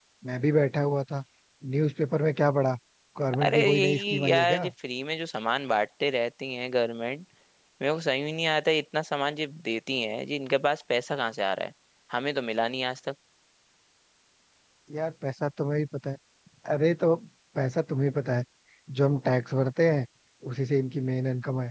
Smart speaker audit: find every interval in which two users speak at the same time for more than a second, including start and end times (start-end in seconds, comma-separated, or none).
3.5-4.7